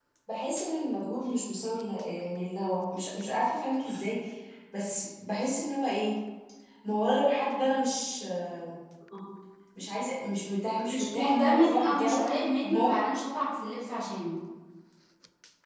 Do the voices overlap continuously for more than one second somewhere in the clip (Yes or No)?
Yes